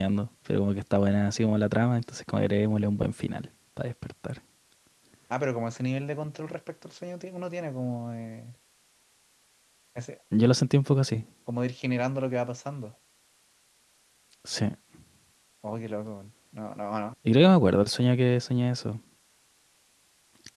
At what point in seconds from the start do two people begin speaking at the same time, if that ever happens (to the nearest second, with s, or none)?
none